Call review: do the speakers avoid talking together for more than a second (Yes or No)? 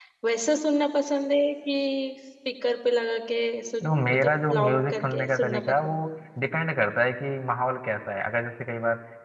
No